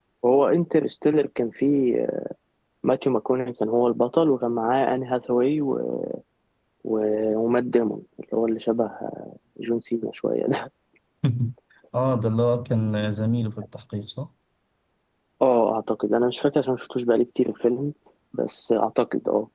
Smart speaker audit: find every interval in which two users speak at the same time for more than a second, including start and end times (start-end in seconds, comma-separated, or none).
none